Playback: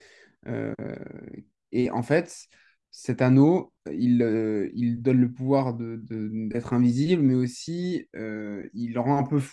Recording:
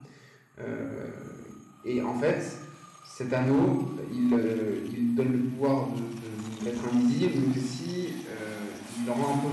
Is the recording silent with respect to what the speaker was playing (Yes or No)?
No